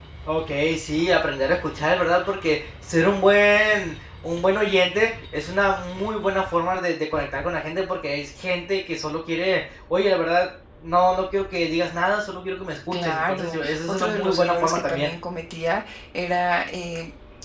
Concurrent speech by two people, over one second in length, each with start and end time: 12.9-15.1

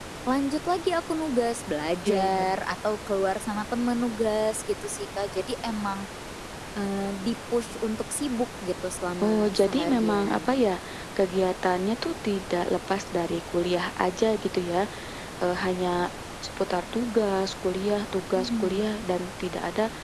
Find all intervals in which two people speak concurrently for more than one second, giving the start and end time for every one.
9.2-10.5

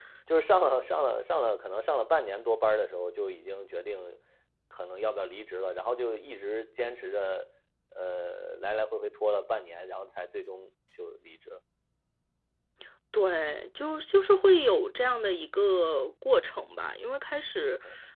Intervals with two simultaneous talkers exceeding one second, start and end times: none

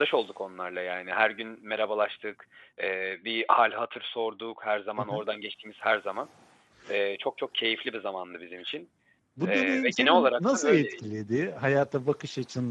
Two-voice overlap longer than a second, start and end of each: 9.4-10.9

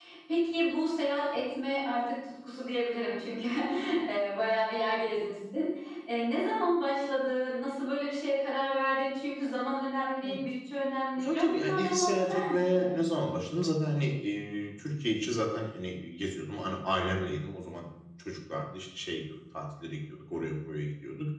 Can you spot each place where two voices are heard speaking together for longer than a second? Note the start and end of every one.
11.2-12.9

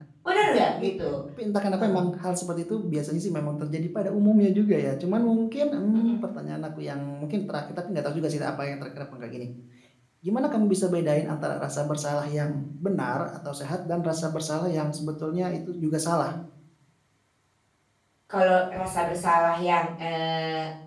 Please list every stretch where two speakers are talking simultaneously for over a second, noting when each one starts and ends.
none

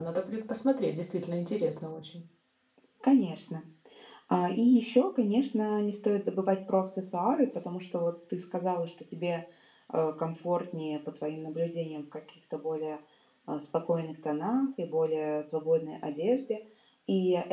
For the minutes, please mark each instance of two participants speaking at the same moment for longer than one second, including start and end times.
none

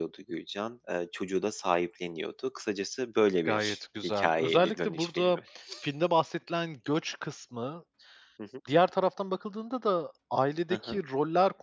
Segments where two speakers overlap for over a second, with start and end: 3.5-5.4

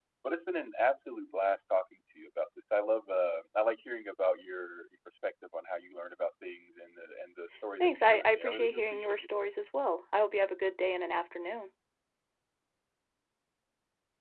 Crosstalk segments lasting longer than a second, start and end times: 7.8-9.3

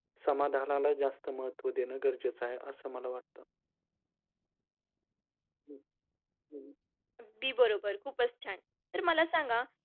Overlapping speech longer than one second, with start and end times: none

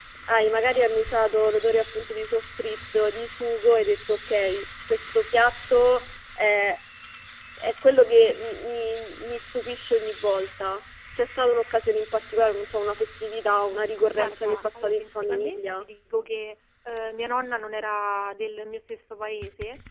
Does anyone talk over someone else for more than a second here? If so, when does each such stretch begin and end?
14.2-15.8

